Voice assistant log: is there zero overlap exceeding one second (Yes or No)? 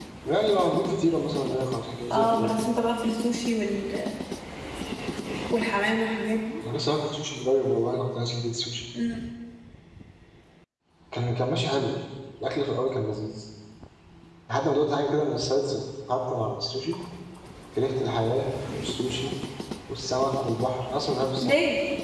Yes